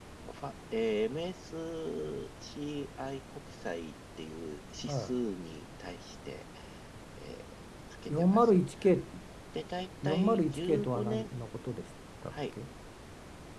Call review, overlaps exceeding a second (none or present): present